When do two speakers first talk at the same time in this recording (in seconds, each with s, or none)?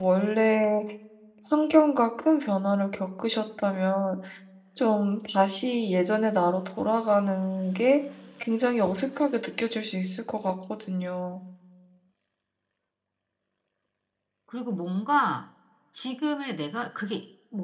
none